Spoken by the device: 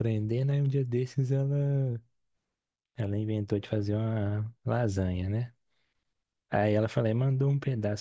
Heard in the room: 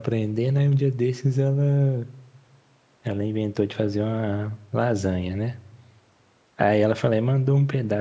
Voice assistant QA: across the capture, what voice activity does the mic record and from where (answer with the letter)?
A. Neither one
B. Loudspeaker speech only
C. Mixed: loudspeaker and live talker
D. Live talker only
B